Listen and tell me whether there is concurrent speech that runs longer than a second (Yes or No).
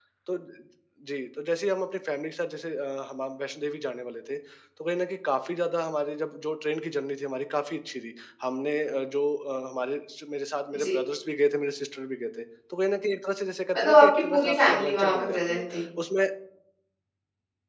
Yes